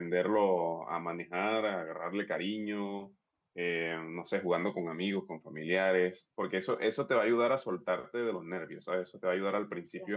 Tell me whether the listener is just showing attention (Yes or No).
Yes